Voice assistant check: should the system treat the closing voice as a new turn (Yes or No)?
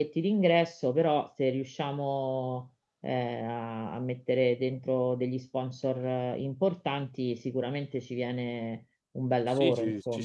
Yes